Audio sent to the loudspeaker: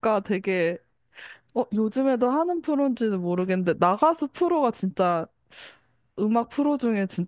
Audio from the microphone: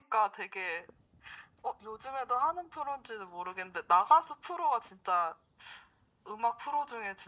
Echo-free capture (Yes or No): No